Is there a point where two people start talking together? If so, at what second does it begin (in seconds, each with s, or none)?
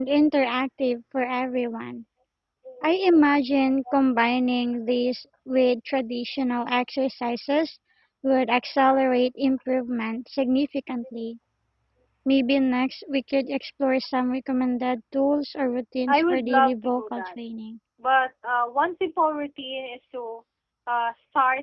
16.1 s